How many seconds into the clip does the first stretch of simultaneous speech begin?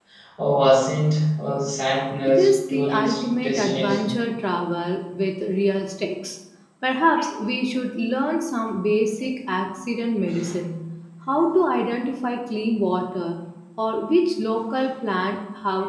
2.3 s

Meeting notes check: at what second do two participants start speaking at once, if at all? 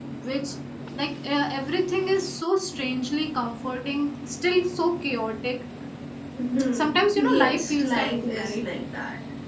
6.7 s

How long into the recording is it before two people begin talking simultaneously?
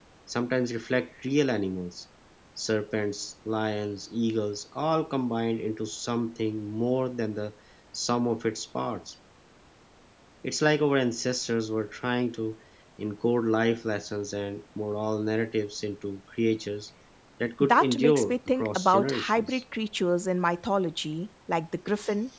17.6 s

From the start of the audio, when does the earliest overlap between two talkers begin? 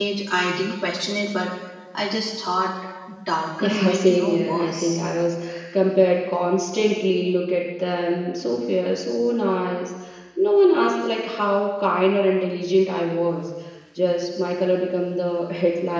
3.6 s

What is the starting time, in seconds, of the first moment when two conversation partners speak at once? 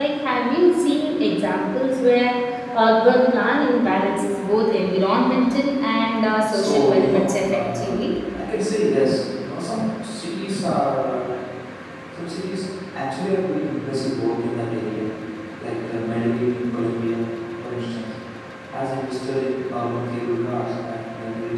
6.5 s

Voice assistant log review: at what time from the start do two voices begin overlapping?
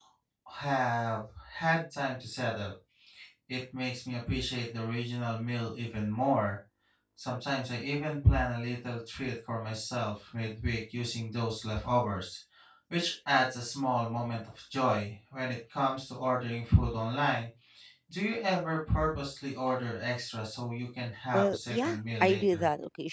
21.3 s

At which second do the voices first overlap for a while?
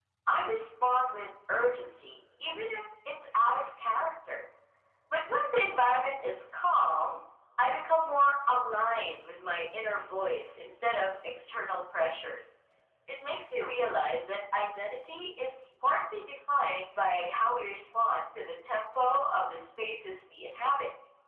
none

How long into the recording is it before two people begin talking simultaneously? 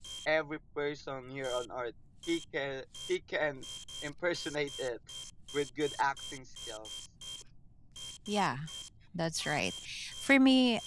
none

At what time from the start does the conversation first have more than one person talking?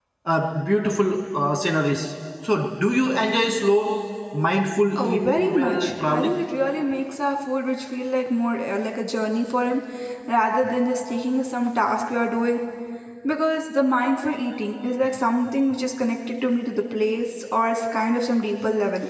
5.0 s

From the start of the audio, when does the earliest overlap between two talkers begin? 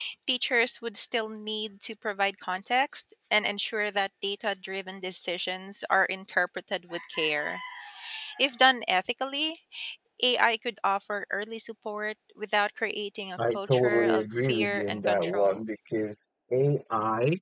13.4 s

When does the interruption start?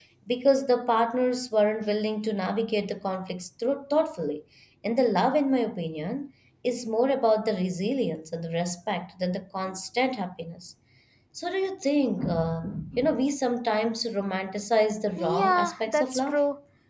15.2 s

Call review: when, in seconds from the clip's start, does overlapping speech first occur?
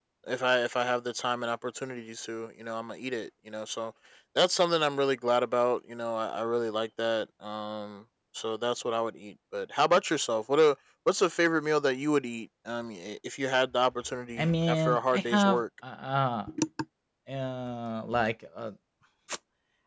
14.4 s

